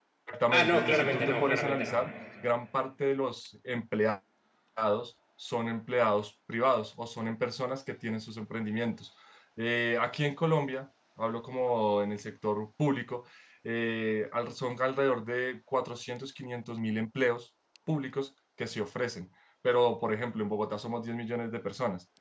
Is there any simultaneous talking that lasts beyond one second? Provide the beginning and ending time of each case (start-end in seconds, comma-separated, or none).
0.5-2.0